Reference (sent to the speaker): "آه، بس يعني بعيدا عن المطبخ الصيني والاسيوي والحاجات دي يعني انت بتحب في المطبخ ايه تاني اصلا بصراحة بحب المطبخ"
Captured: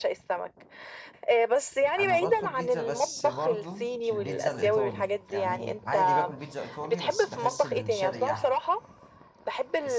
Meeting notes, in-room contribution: present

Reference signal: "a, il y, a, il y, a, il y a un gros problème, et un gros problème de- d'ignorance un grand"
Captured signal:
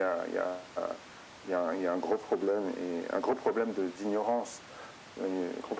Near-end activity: none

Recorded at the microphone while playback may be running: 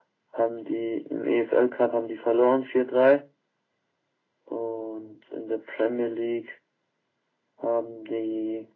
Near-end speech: none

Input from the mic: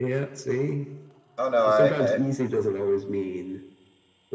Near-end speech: present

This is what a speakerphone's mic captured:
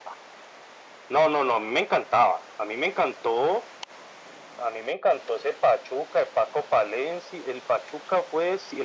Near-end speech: none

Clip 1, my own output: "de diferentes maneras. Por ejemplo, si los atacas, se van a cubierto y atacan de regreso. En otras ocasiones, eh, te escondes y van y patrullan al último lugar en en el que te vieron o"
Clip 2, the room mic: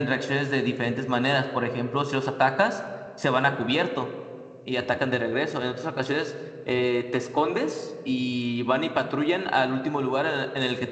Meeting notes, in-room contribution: none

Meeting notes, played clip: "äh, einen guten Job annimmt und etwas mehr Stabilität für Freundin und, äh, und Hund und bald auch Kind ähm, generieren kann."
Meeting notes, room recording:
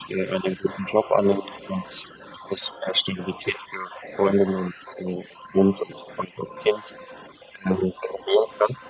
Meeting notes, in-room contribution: none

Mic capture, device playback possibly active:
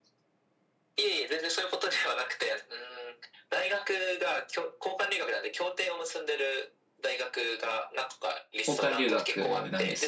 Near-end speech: present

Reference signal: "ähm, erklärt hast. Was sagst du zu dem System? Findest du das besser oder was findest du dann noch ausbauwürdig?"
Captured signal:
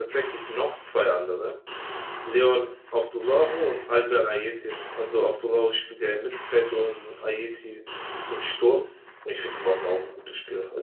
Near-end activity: present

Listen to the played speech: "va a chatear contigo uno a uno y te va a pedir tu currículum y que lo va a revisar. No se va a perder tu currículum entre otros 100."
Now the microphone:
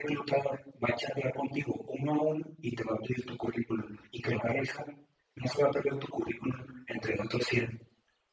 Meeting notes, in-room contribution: none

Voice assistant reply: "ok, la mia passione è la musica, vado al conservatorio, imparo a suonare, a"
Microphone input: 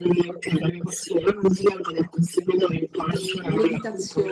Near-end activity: present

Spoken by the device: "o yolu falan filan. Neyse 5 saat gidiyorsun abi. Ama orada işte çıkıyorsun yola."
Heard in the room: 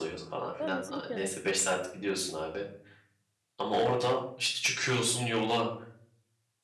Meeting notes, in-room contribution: present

